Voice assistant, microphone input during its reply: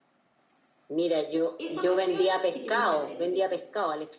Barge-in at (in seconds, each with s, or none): 1.6 s